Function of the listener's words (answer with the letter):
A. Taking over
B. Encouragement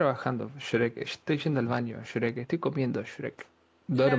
A